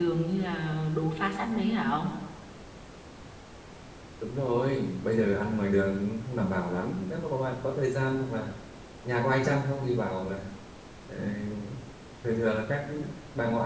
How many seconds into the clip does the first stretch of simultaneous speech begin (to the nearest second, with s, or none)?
none